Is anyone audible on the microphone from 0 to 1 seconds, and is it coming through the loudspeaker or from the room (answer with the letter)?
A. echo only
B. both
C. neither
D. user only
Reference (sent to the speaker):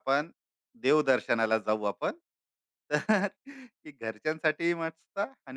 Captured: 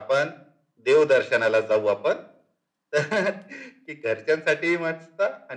A